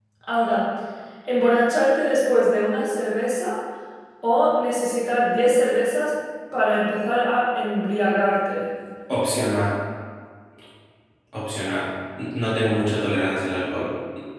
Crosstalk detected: No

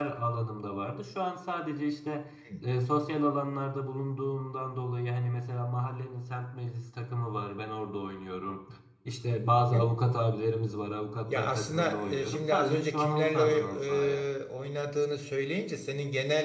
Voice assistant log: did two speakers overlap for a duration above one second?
Yes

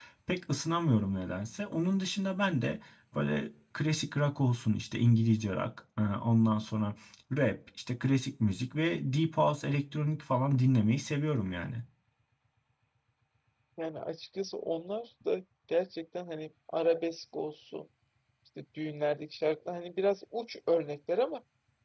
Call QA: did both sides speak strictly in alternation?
Yes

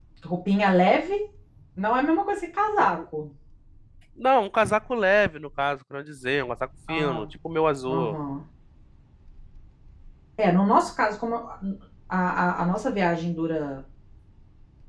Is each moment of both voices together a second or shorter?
Yes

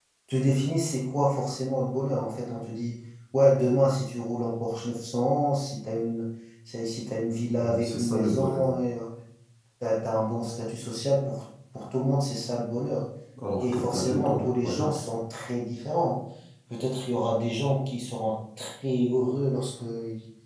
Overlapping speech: Yes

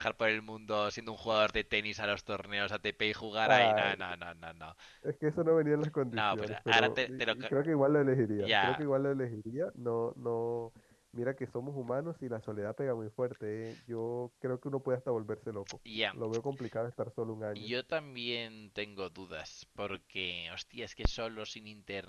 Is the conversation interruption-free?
No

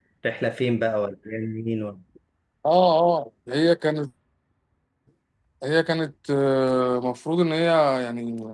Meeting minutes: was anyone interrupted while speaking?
No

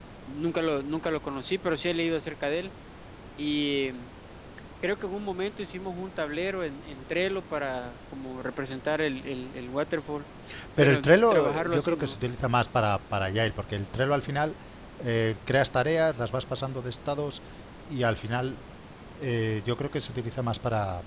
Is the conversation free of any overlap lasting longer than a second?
No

